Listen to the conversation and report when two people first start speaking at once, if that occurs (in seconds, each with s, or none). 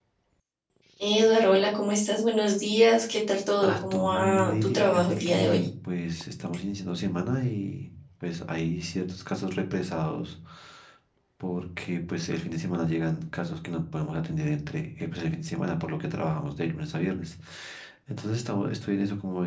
3.6 s